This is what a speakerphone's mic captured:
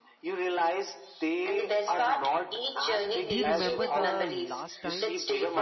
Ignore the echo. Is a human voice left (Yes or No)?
Yes